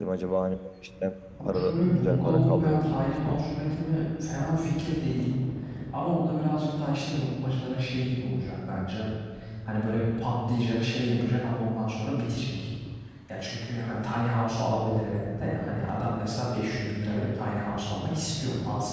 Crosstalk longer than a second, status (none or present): present